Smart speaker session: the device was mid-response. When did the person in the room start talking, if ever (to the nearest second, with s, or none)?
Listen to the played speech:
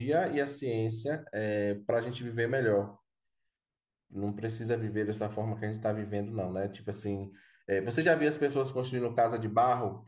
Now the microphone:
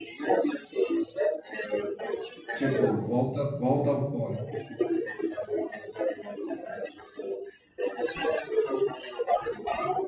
3 s